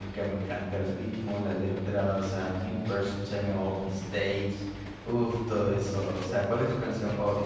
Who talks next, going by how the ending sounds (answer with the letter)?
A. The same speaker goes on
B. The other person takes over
A